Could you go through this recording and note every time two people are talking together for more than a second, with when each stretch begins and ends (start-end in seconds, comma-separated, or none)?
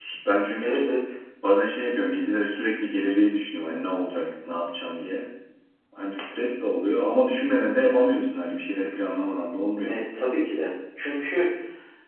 none